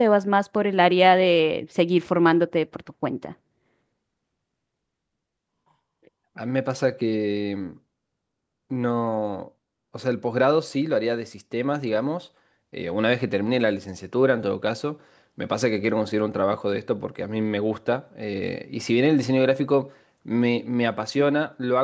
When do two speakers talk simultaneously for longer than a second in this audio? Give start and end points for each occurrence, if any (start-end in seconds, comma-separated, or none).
none